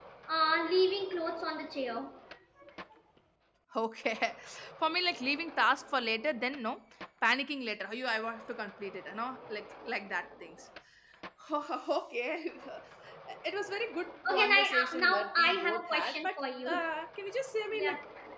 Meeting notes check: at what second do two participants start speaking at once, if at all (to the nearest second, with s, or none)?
14 s